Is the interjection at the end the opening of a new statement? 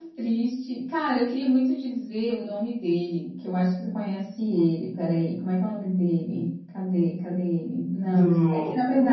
No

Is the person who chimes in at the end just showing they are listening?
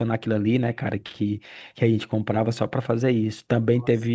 Yes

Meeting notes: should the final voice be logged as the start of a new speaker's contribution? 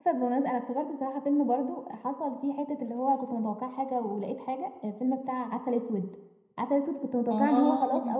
No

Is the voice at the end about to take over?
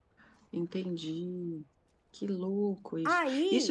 No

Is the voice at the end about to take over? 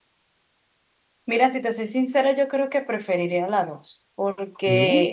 No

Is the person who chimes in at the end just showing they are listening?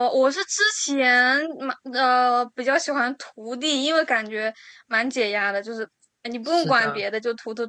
Yes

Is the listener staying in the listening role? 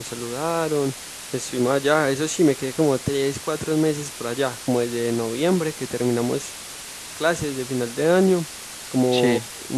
Yes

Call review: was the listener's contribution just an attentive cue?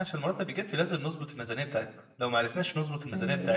Yes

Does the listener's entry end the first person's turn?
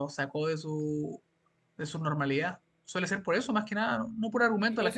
Yes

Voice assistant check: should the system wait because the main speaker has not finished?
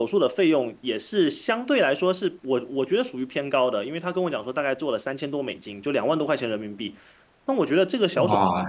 No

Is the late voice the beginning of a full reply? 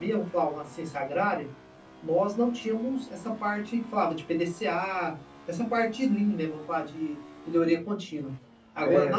No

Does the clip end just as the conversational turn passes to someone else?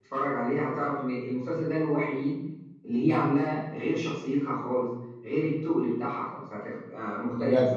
Yes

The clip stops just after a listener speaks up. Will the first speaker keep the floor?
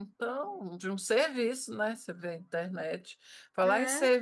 Yes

